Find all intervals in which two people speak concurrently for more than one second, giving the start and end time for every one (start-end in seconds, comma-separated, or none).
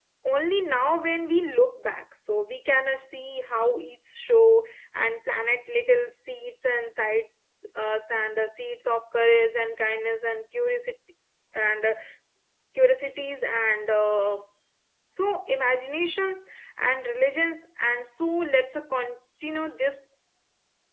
none